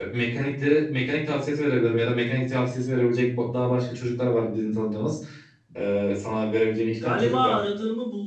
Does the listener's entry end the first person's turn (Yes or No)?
Yes